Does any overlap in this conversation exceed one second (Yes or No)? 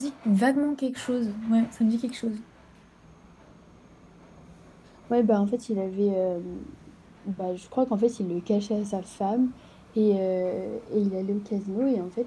No